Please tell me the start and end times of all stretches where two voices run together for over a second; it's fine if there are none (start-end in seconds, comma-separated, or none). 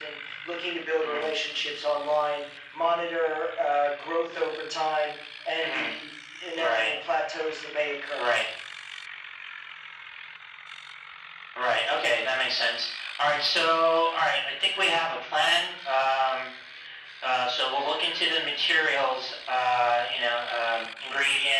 none